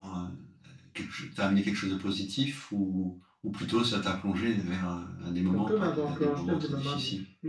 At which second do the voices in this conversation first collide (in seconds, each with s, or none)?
5.5 s